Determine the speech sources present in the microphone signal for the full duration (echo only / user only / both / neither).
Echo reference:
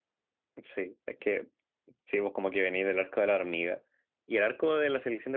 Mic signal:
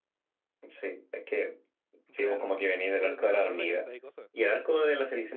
both